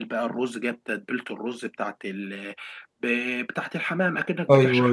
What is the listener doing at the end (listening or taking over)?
listening